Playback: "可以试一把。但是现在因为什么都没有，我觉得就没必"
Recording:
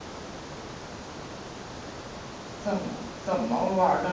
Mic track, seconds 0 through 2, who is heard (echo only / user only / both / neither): neither